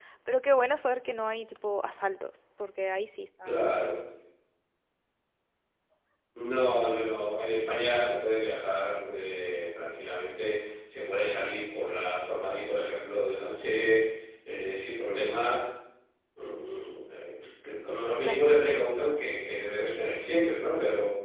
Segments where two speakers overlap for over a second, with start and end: none

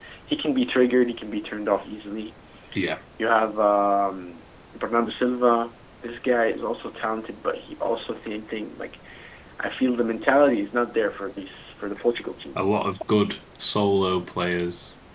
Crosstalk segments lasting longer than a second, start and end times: none

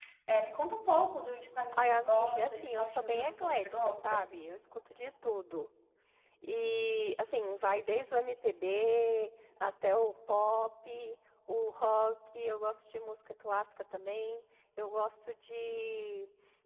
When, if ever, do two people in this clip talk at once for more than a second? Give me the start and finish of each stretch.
1.7-4.2

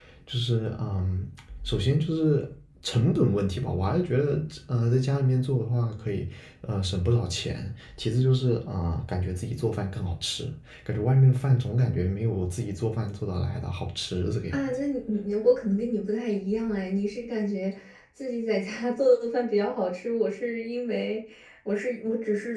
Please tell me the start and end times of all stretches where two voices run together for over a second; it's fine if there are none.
none

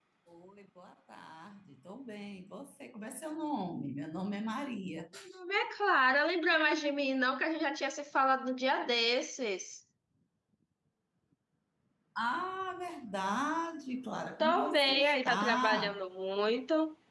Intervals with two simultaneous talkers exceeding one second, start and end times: 14.4-16.0

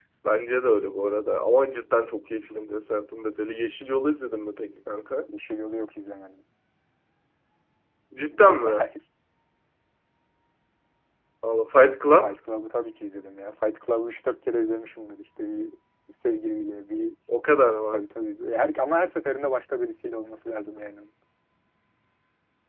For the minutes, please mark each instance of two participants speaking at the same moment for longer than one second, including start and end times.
none

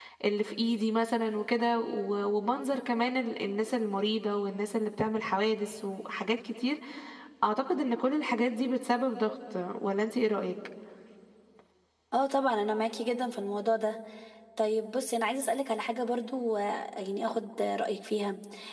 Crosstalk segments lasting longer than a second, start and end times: none

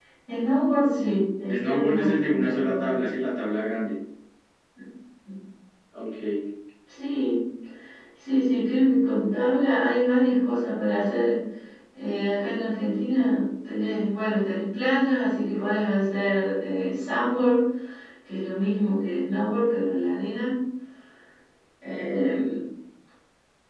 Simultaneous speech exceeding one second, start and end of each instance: 1.5-2.9

